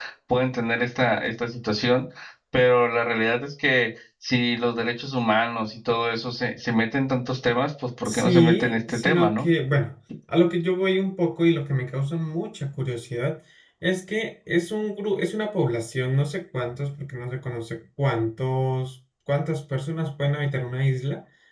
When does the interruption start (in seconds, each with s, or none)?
8.1 s